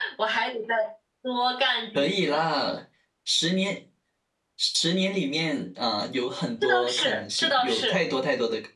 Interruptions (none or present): present